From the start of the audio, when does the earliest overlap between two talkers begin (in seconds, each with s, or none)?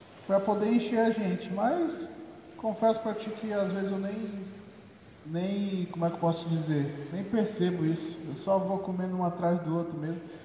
none